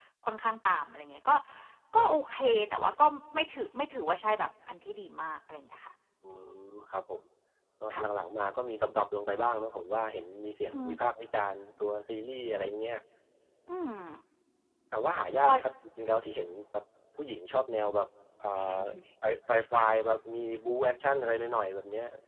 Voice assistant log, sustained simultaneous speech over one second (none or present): none